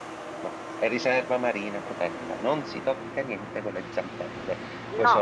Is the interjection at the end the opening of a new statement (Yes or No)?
Yes